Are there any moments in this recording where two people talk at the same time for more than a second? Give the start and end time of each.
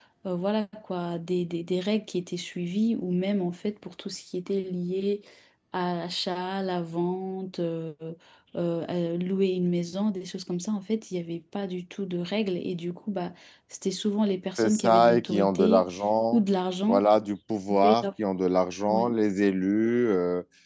14.6-15.8

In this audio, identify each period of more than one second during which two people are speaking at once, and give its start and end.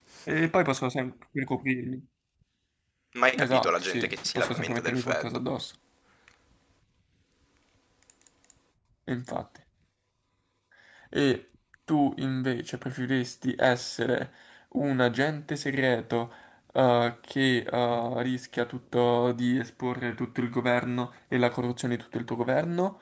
3.4-5.4

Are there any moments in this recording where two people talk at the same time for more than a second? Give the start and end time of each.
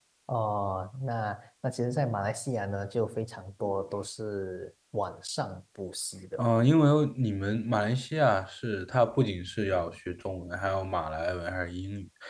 none

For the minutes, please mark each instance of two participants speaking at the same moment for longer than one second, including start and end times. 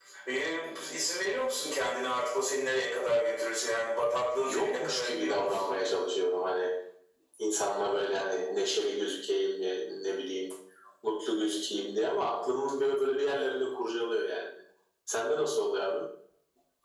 4.5-5.8

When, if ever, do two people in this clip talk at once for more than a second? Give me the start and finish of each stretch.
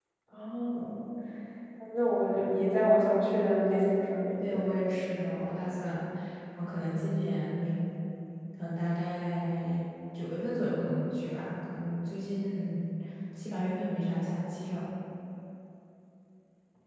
none

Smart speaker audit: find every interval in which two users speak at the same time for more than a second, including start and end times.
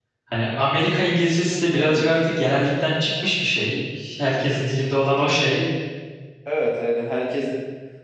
none

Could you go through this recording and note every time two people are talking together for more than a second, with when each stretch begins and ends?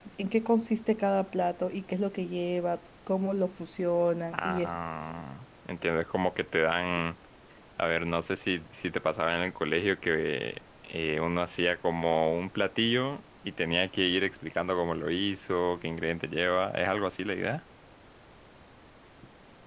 none

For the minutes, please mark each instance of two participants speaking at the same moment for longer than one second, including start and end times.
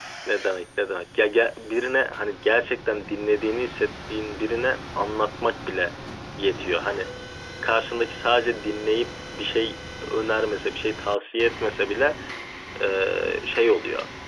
none

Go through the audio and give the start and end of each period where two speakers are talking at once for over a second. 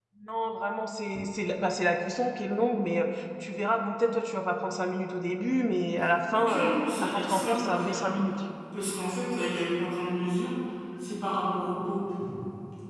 6.3-8.1

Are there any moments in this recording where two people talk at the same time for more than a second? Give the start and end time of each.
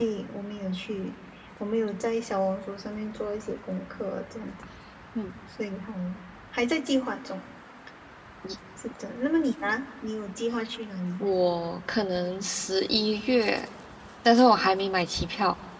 none

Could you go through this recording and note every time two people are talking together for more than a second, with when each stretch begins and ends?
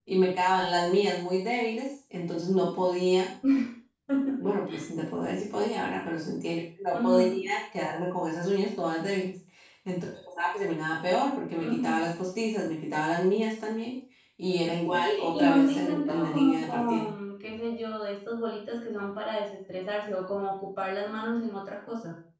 14.9-17.0

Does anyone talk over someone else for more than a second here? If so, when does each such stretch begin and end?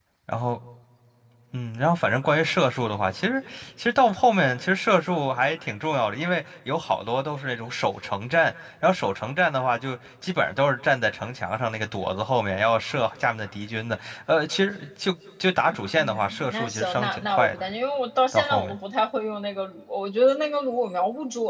16.0-17.6

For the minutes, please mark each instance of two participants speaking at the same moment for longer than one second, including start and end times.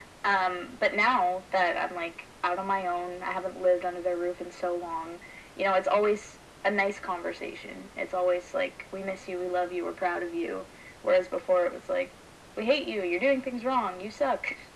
none

